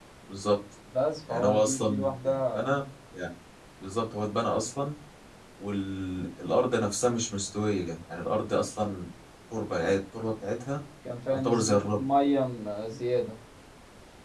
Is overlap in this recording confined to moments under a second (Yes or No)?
No